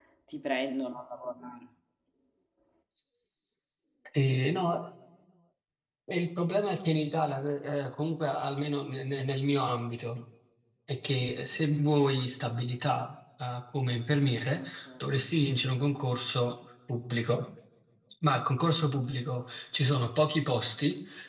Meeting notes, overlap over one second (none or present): none